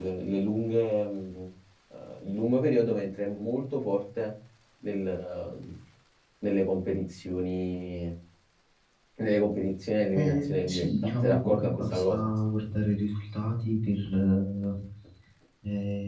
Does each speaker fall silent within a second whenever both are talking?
No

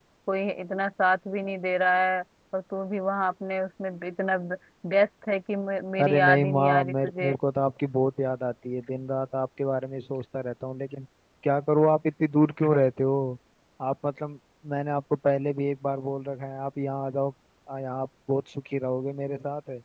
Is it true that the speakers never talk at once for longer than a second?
No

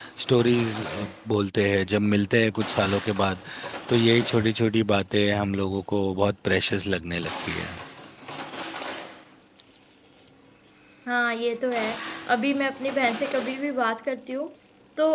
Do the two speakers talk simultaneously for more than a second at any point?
No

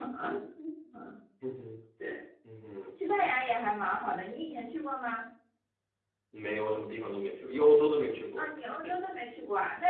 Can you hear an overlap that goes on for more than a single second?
No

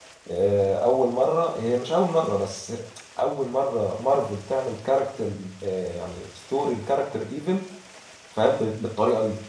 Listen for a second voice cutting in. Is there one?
No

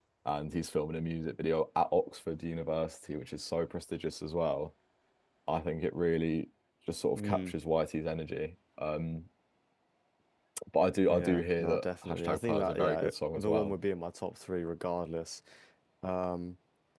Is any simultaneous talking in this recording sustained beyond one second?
Yes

